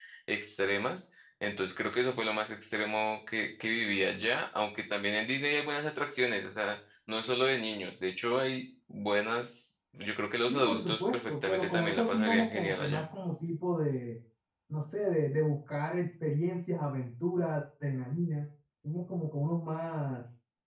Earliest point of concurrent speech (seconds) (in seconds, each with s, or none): 10.5 s